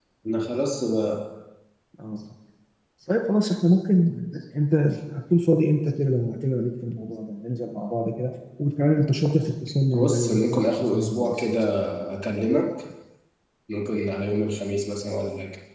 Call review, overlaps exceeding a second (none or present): present